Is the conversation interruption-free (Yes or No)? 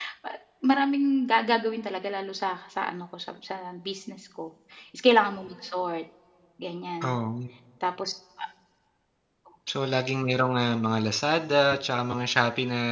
Yes